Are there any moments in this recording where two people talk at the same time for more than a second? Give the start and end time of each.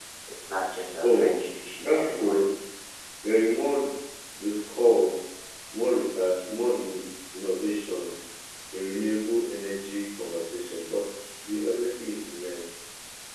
1.0-2.4

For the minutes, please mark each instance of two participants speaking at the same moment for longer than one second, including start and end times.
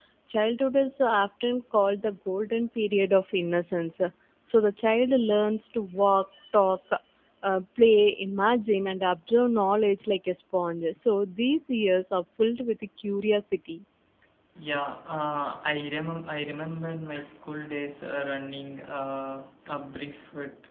none

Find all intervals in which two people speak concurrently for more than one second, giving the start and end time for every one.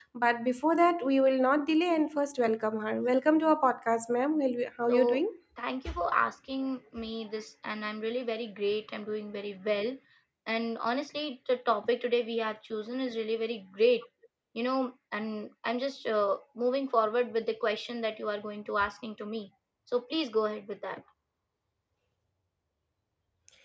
none

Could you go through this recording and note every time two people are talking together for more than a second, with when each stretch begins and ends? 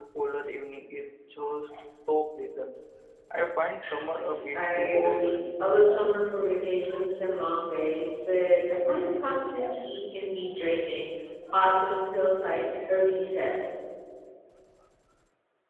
4.5-6.2

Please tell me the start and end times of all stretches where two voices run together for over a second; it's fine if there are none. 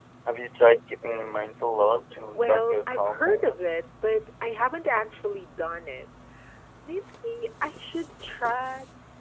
2.3-3.6

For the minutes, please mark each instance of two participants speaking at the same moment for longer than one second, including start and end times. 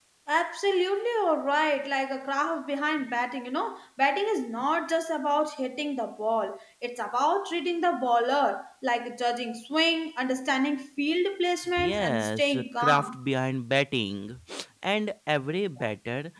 11.8-13.2

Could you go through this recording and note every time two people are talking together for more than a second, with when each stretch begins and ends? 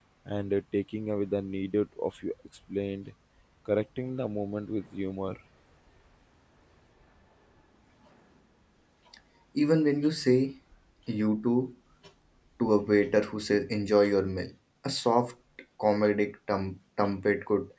none

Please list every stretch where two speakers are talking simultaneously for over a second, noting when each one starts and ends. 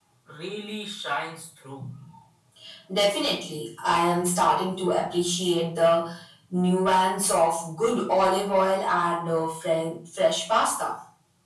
none

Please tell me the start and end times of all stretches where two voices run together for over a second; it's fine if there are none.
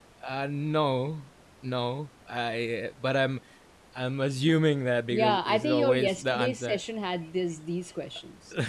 5.1-6.8

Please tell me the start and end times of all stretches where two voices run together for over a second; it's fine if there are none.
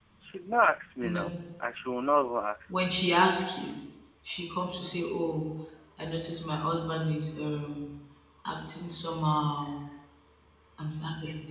none

